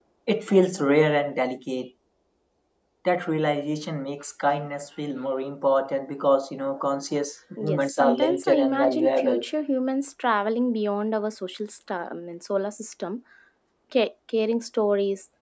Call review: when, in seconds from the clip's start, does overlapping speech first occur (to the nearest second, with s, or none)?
8 s